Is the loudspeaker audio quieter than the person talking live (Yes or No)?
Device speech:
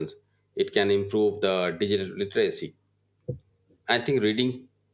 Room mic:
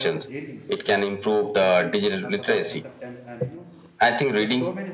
No